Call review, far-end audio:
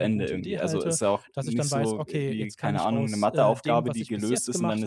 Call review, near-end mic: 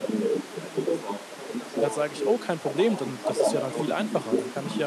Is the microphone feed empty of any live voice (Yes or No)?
No